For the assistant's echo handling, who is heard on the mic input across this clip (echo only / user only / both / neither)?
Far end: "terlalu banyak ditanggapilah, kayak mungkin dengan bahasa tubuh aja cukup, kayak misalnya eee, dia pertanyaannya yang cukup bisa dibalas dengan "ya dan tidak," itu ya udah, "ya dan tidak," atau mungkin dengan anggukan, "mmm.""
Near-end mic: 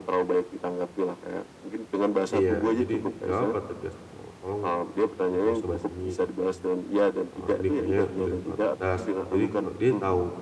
both